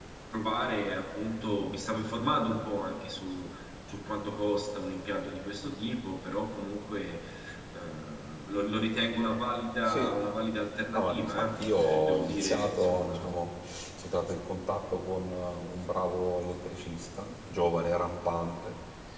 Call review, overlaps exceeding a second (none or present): present